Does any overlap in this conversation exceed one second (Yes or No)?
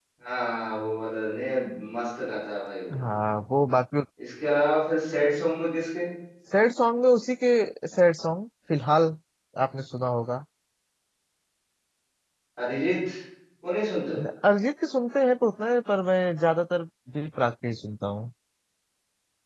No